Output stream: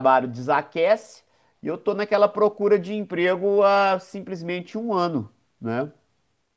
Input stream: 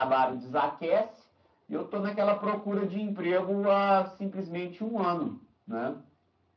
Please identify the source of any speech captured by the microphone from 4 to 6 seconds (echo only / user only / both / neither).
echo only